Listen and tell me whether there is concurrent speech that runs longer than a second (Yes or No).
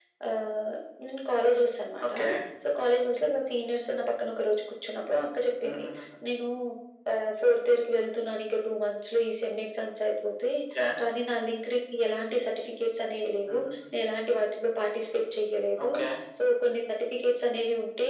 No